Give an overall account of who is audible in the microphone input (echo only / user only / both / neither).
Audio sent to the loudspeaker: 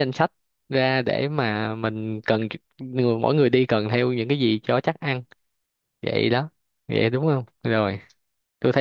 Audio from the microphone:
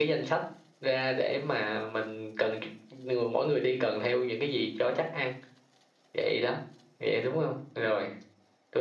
echo only